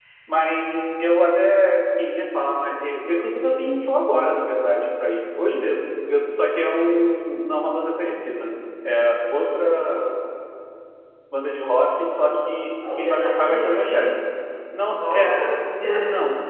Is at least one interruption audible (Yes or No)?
Yes